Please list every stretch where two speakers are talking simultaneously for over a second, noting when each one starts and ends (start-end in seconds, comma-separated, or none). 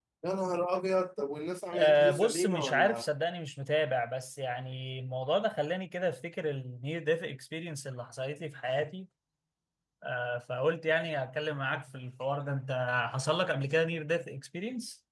1.7-3.1